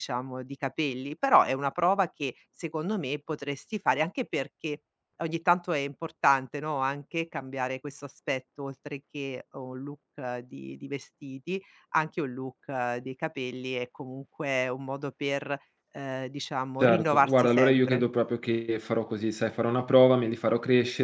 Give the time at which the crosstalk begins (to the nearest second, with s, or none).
17 s